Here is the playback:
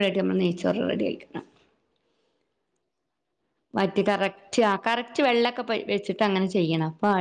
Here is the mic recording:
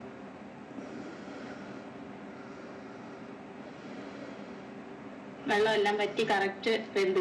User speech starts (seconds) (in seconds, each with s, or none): 5.5 s